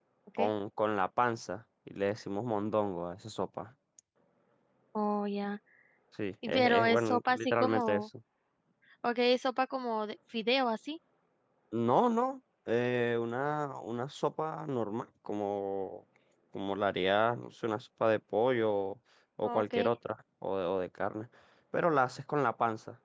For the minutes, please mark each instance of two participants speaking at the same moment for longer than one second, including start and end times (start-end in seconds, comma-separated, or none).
6.5-8.0